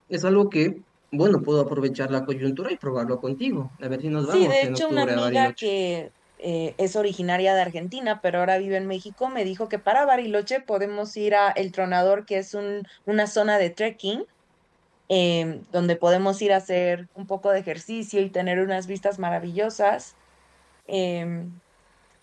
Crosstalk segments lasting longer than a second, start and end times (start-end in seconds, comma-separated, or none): 4.3-5.6